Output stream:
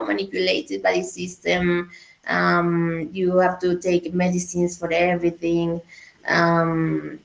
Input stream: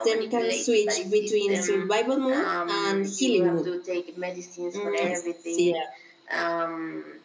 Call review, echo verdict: present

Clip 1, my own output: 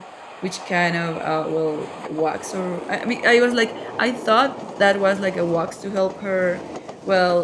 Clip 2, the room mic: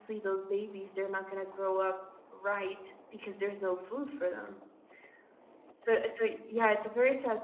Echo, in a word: none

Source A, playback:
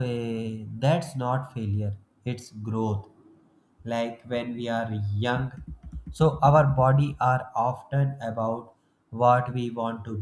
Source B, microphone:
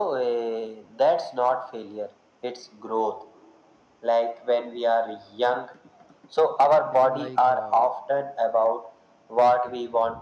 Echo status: present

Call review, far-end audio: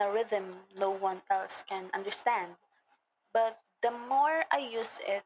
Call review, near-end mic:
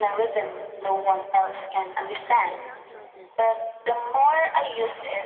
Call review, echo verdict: present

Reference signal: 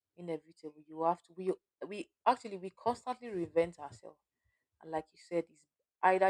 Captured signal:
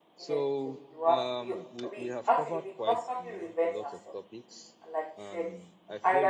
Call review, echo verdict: present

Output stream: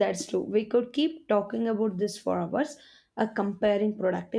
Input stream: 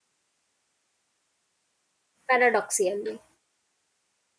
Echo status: none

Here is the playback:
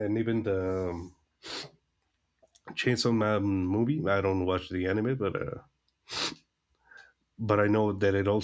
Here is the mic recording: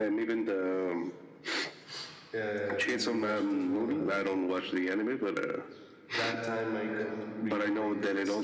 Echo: present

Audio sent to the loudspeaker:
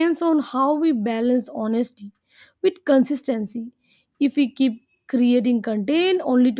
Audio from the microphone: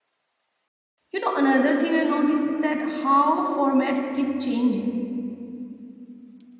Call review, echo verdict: none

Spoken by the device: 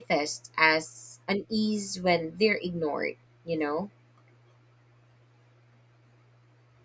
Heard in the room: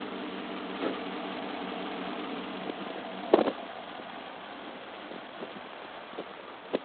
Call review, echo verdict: none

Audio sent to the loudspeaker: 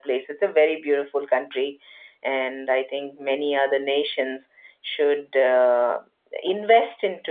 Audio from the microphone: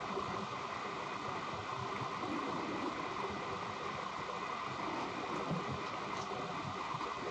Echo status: none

